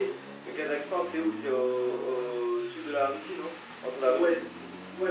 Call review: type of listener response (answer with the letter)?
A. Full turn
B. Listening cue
A